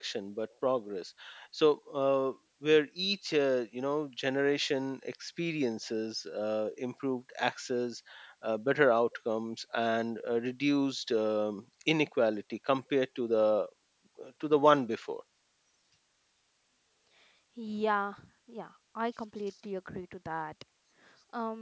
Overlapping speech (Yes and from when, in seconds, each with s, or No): No